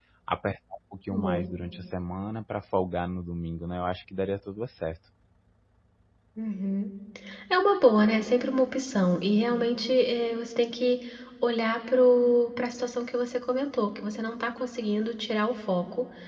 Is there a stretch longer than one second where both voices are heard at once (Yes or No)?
No